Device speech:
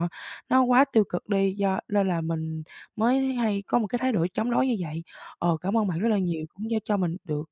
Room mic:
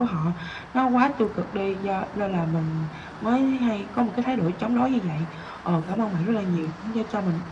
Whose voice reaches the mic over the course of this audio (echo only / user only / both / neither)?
echo only